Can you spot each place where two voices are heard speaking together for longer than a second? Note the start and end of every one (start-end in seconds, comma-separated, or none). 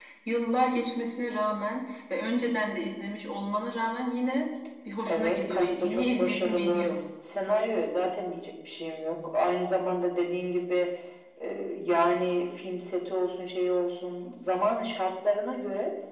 5.0-6.9